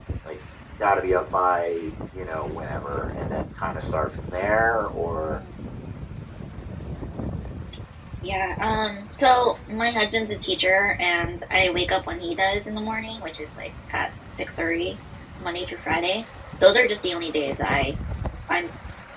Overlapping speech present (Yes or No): No